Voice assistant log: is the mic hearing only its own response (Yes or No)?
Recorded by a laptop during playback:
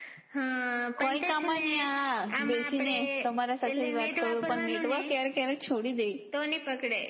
No